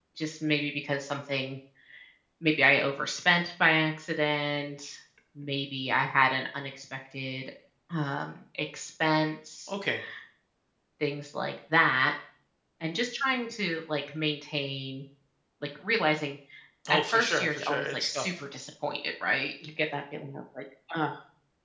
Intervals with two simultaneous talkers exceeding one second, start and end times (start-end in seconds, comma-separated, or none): 16.9-18.3